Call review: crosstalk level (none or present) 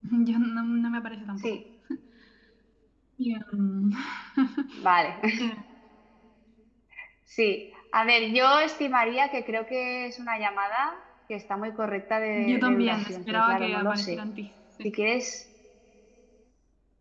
present